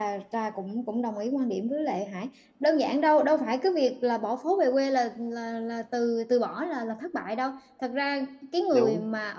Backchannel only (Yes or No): Yes